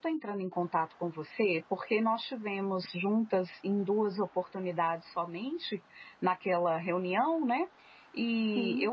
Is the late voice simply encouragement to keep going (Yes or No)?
Yes